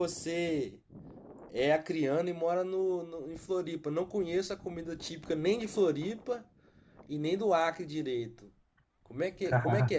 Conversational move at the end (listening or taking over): listening